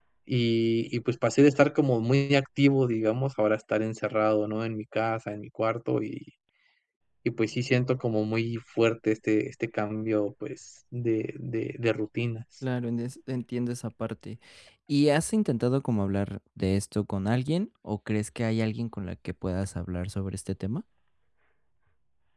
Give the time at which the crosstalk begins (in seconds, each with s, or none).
none